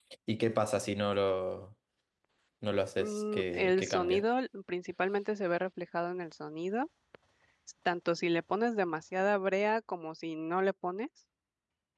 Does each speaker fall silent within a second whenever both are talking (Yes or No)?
No